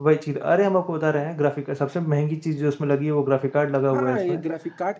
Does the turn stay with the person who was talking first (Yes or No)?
No